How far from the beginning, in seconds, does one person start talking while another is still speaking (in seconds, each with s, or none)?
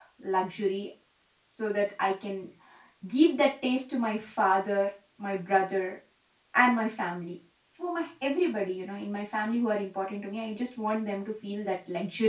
none